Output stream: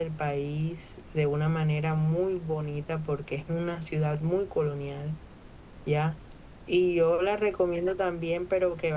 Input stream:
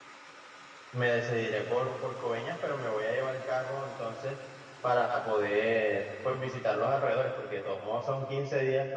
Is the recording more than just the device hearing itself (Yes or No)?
Yes